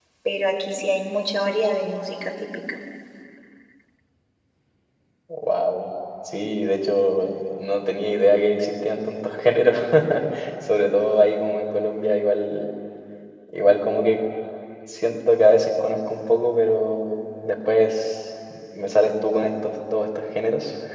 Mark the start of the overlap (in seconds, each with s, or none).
none